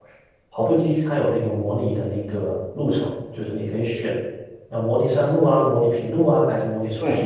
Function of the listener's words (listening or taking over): taking over